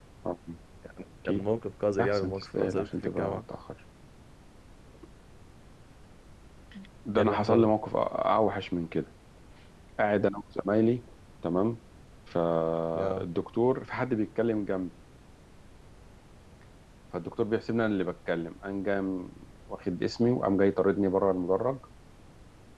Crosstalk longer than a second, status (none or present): present